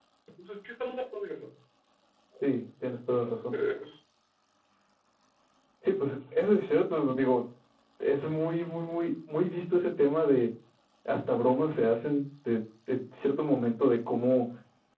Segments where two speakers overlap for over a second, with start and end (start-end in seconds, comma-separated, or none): none